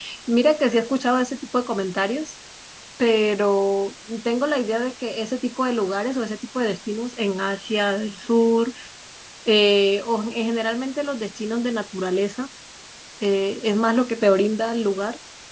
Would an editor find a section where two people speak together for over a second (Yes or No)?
No